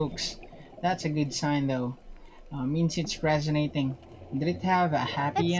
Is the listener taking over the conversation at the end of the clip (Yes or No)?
Yes